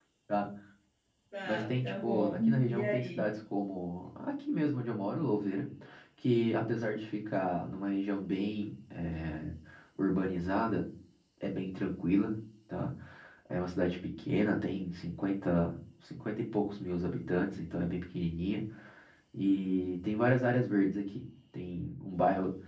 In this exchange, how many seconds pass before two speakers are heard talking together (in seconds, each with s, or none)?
1.4 s